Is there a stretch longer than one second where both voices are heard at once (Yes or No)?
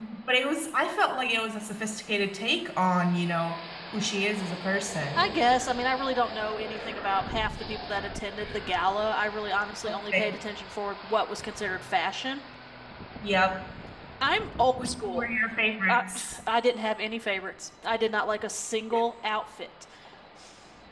No